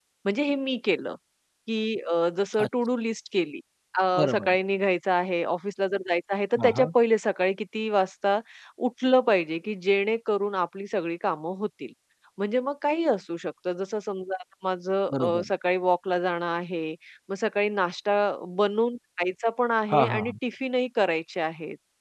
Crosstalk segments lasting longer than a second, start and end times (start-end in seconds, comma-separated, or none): none